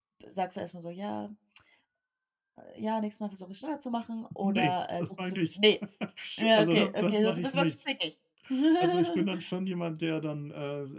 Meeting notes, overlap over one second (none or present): present